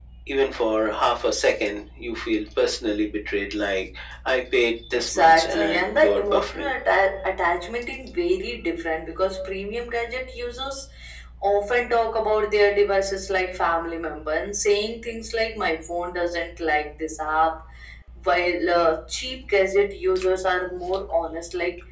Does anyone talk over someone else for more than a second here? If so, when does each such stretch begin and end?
4.9-6.7

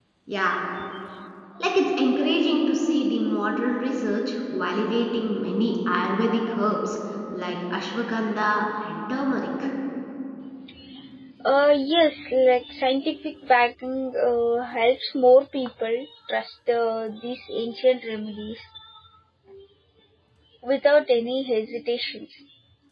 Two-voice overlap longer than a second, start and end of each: none

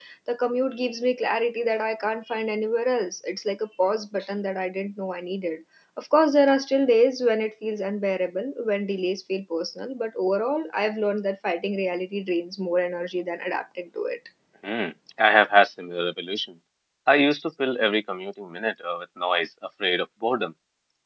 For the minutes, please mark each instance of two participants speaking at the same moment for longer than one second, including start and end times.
none

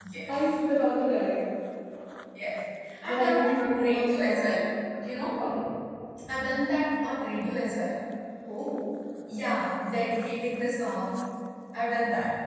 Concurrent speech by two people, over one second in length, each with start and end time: 3.0-4.5

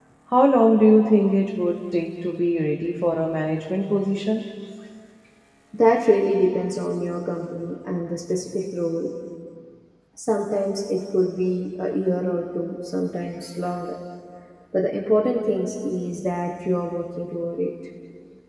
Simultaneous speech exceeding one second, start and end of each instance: none

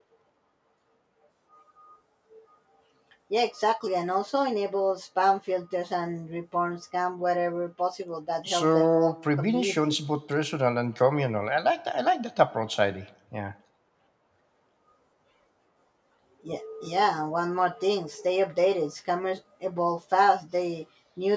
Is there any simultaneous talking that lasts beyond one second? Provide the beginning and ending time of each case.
8.4-10.0

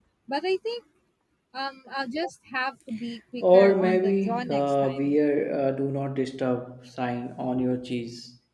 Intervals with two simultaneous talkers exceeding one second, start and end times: 3.4-5.2

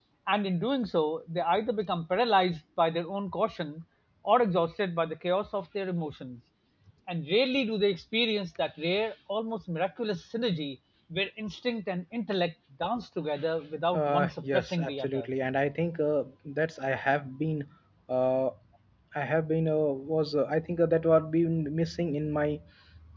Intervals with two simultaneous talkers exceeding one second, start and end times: 13.9-15.3

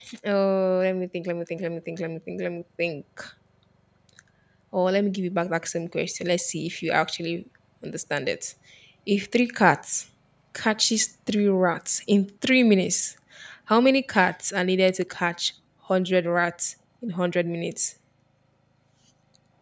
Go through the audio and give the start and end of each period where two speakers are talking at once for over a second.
none

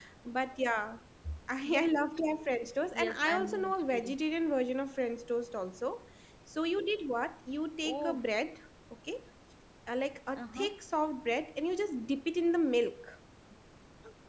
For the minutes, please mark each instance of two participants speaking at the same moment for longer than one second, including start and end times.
2.9-4.1

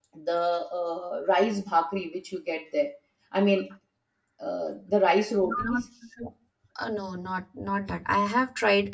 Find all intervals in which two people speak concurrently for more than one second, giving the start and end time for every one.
none

